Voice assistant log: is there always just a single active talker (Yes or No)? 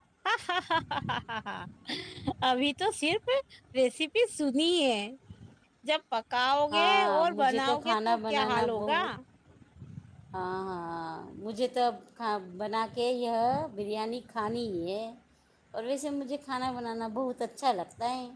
No